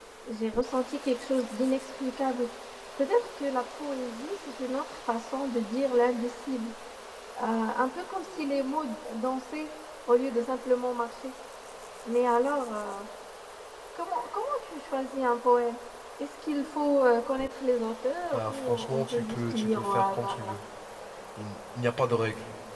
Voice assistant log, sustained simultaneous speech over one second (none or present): present